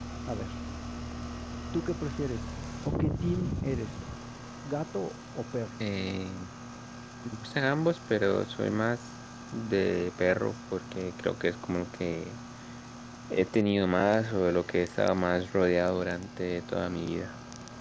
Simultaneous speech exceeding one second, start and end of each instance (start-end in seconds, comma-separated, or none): none